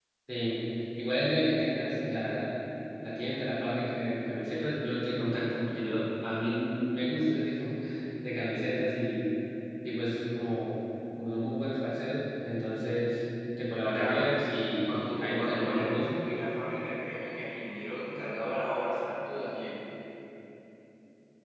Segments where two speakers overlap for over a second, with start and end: 13.9-16.1

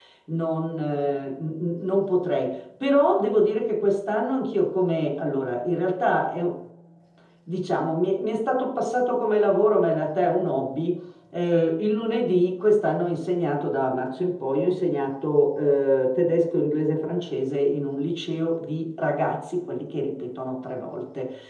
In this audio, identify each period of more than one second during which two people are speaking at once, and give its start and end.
none

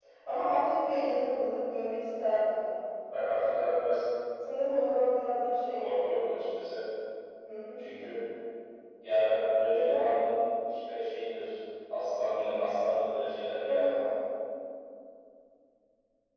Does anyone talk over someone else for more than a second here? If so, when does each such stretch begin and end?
none

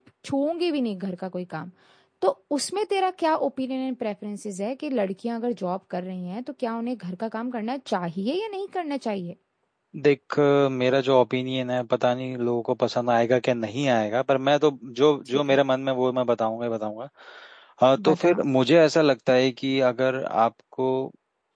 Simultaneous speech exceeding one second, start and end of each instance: none

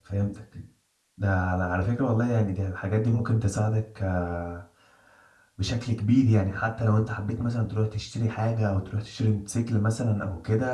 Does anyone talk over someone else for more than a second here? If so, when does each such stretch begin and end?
none

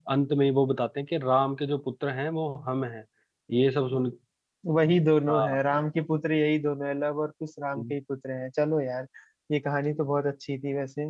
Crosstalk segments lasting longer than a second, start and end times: none

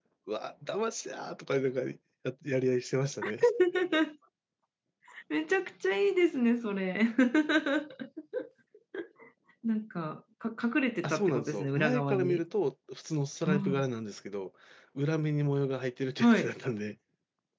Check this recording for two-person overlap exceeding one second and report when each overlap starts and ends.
11.0-12.4

